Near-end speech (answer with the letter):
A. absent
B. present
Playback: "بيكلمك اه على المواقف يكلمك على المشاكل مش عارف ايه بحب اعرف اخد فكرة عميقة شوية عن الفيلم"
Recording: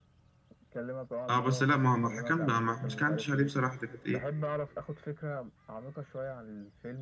B